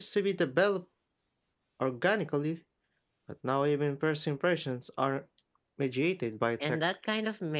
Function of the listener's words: taking over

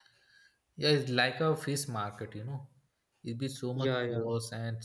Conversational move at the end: listening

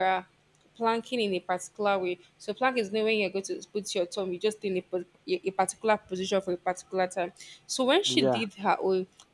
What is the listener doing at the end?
listening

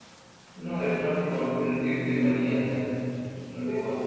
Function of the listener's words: taking over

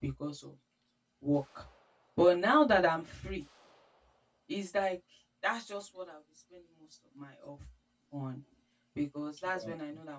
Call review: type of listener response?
listening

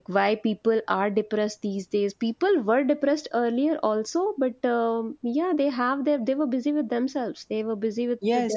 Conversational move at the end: taking over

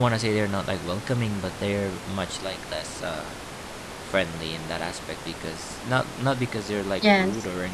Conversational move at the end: listening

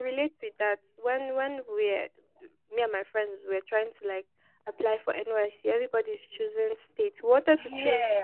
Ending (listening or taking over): listening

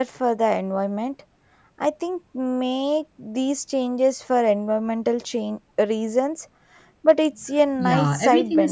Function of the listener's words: taking over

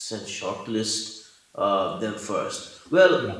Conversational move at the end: listening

